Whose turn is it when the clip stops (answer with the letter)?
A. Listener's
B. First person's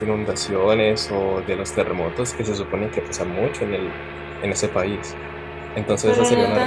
A